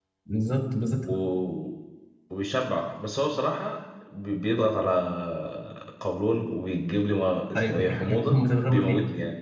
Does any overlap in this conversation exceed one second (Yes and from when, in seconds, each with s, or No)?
Yes, from 7.5 s